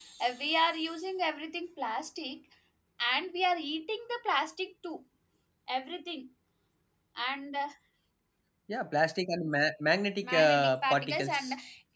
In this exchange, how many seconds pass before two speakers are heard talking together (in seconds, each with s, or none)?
10.2 s